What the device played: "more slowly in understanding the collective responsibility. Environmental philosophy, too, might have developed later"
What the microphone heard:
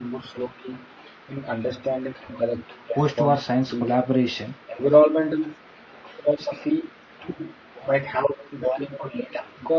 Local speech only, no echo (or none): post-war science collaboration.